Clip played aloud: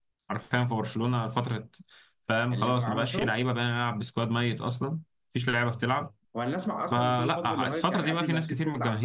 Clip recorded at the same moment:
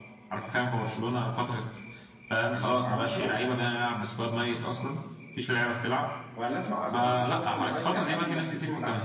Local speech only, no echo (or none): none